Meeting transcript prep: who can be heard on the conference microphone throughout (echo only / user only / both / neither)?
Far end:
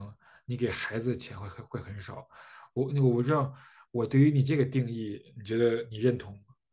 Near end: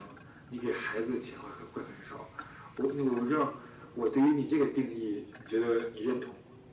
echo only